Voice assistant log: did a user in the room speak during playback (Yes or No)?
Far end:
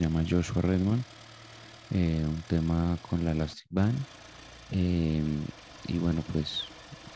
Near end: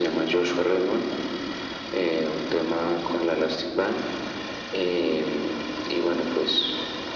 No